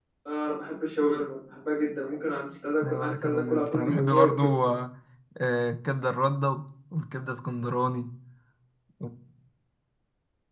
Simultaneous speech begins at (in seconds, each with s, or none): 2.8 s